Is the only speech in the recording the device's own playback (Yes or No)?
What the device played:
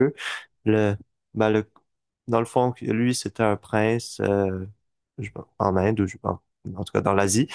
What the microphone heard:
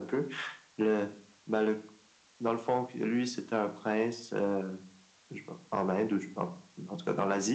Yes